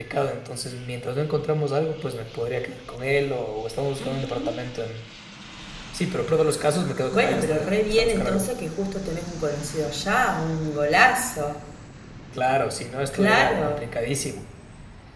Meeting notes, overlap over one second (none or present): present